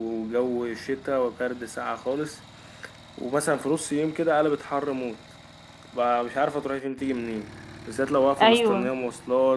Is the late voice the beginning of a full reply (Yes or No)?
No